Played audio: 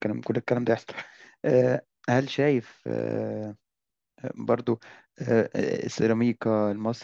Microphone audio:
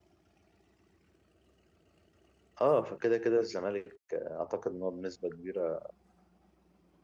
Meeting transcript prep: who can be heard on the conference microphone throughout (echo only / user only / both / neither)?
user only